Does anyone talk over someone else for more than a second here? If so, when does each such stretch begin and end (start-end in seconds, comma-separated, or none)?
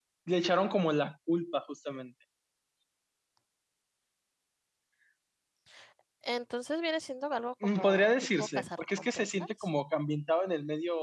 7.6-9.7